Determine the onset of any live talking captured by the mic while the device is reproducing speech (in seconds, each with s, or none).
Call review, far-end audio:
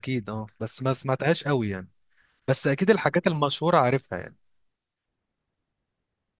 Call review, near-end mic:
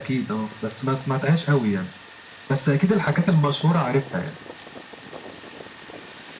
none